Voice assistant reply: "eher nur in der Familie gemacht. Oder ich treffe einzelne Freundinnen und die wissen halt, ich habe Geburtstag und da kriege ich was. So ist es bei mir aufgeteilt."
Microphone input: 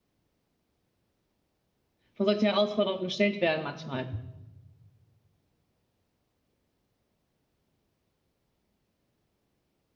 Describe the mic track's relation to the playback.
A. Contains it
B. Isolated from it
B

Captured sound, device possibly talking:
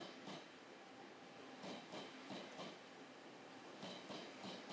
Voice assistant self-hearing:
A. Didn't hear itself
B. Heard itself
A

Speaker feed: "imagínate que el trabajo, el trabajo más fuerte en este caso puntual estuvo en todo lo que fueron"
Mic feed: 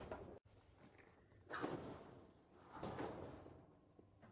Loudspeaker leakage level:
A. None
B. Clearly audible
A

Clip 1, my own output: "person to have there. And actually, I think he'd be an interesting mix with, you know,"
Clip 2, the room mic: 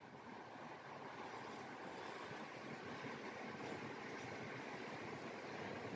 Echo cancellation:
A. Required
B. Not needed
B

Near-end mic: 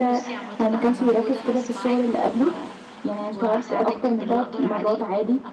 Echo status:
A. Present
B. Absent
A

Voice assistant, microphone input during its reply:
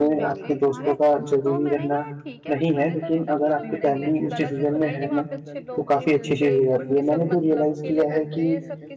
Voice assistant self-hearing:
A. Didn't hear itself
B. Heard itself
B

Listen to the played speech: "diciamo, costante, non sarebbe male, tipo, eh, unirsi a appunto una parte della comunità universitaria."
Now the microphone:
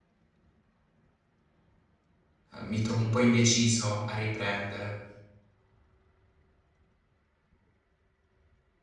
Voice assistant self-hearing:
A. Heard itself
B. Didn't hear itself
B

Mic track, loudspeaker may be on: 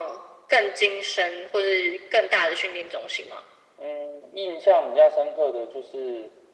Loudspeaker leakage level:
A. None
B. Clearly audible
B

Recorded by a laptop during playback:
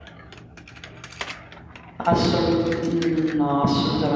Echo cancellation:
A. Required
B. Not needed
B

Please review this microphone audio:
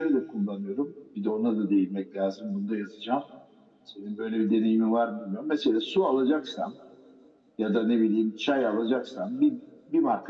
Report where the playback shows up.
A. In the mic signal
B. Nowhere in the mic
A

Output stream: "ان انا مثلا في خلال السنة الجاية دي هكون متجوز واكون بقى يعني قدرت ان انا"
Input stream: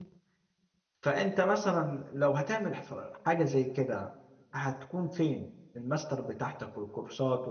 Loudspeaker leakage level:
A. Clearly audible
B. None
B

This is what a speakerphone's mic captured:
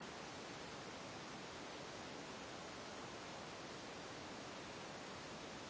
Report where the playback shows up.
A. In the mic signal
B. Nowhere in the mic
B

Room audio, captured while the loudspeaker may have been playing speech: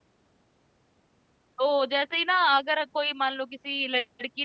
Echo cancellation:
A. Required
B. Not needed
B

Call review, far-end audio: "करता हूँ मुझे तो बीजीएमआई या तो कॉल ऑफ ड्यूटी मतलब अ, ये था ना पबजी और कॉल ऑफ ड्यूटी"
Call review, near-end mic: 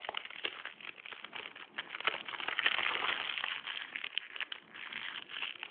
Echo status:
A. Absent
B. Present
A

